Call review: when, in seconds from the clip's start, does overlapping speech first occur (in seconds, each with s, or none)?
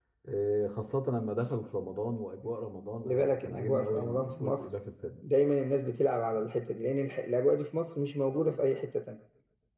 3.0 s